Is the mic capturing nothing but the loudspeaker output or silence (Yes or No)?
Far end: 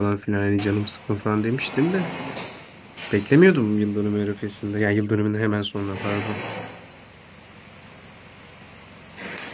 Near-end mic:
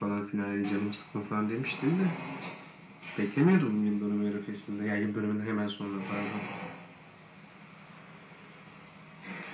Yes